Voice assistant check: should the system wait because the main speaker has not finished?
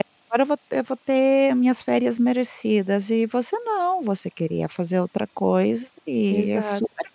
No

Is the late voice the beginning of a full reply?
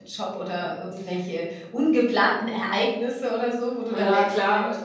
Yes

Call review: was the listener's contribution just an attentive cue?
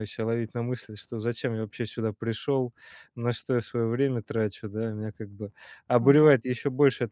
Yes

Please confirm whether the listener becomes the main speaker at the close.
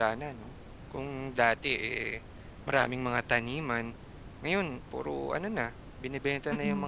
No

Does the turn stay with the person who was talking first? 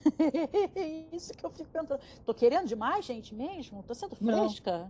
No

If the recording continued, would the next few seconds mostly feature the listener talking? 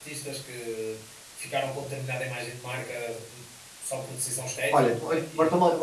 Yes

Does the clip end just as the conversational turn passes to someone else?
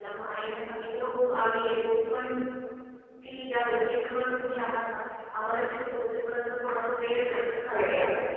No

